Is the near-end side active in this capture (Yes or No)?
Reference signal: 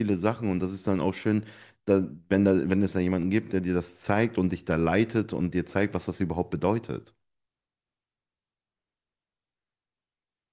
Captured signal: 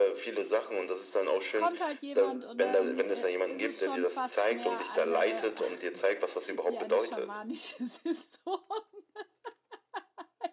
Yes